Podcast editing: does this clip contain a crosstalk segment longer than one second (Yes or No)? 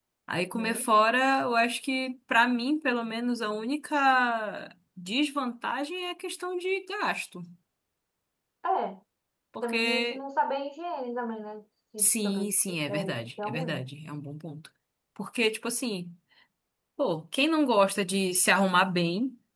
Yes